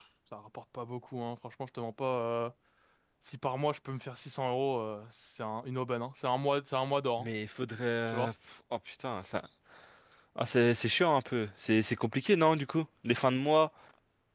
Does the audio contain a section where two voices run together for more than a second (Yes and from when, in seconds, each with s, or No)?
No